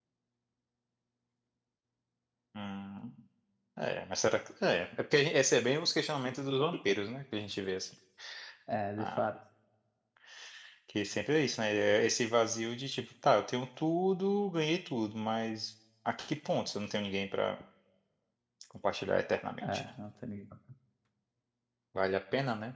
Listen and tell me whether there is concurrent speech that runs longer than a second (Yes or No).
No